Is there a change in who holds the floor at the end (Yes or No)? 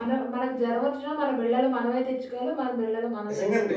Yes